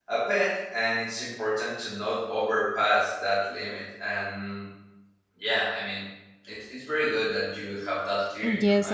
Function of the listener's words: taking over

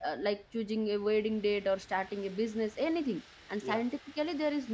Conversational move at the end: listening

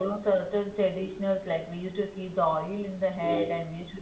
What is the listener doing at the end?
listening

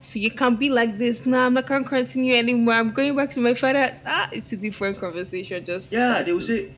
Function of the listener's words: taking over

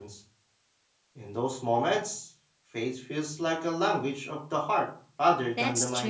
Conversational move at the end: taking over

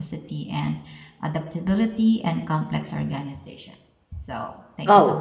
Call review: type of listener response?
taking over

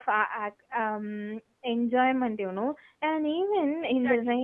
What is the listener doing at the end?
taking over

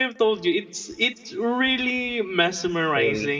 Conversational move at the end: listening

